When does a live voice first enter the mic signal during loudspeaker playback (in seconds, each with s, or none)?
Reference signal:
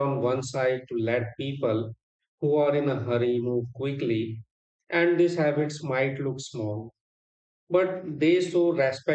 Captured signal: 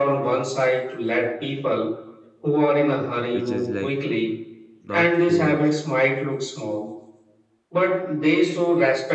3.3 s